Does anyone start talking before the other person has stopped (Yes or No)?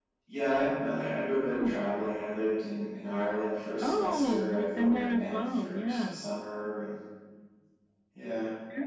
Yes